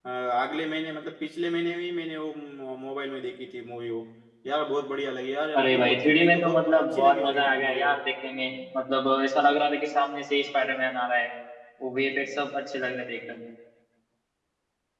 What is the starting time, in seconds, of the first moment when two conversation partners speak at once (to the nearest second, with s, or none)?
6 s